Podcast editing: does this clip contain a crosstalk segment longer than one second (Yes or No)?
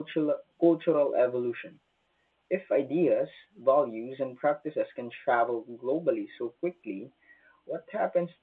No